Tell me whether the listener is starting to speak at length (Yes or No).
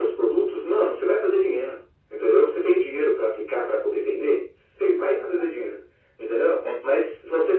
No